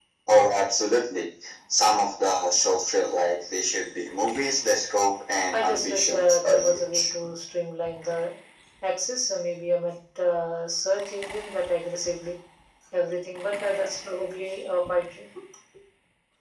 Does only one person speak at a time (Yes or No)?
No